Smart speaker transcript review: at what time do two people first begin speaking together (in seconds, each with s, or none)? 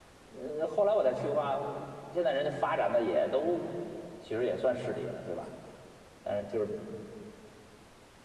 none